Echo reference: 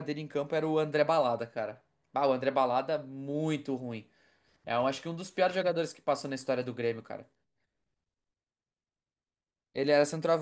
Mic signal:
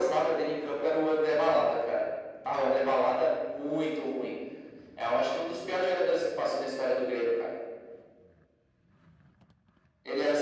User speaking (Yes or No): No